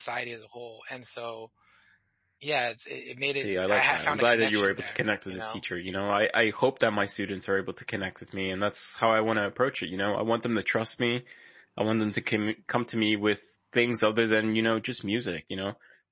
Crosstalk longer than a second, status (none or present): present